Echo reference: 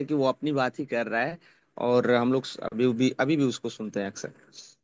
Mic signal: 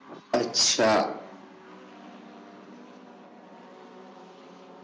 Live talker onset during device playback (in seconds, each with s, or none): 0.3 s